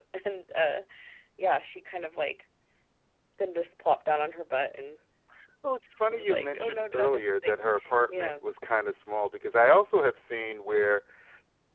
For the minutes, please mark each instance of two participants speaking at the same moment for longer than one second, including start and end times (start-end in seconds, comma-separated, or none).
6.1-7.5